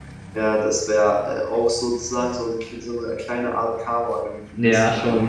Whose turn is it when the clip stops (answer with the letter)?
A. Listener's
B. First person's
A